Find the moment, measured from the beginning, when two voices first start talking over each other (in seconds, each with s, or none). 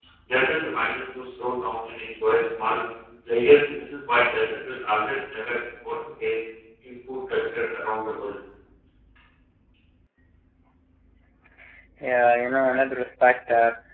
none